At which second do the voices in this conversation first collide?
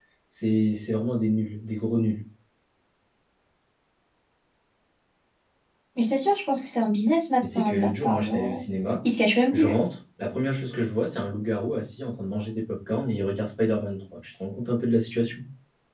7.4 s

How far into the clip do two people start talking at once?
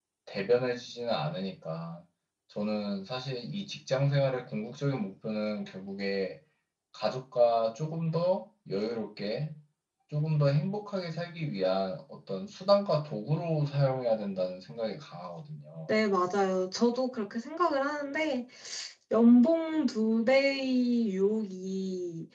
none

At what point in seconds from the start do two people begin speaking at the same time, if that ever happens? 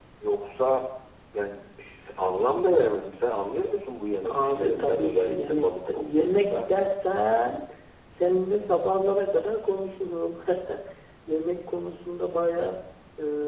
4.2 s

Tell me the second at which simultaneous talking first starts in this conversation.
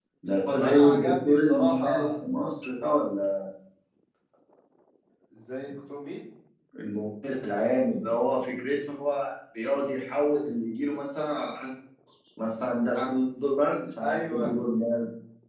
0.6 s

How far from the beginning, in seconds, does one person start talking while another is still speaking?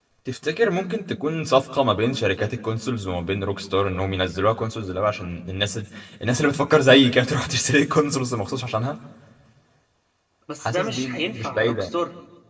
10.6 s

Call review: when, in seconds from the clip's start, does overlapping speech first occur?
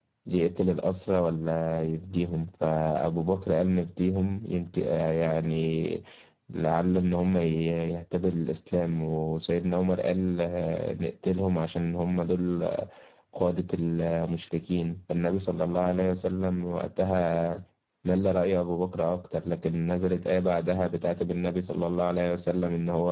none

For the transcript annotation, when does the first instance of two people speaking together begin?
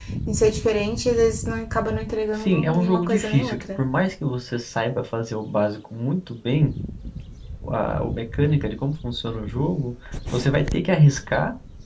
2.4 s

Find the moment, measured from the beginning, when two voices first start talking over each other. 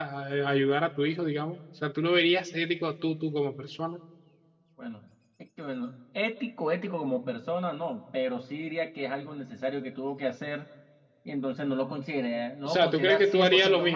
12.6 s

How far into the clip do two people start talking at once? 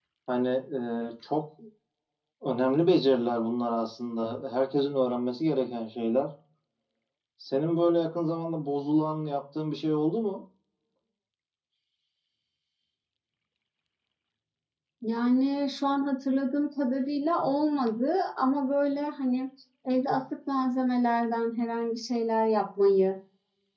none

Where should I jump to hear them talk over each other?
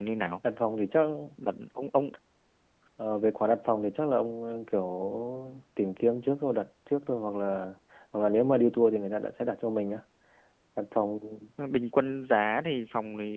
none

